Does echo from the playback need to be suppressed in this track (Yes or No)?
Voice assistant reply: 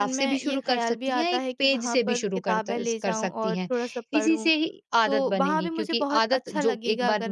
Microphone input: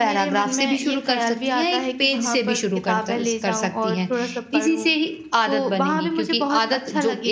Yes